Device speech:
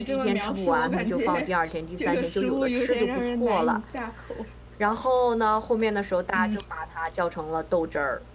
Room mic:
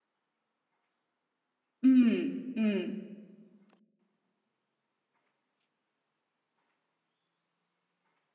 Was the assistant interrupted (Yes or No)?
Yes